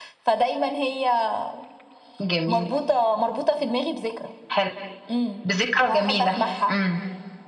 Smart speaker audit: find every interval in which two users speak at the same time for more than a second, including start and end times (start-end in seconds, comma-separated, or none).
none